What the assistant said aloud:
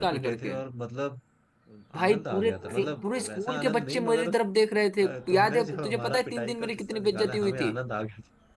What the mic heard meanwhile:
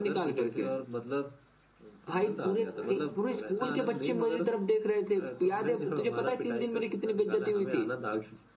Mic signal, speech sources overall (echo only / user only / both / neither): echo only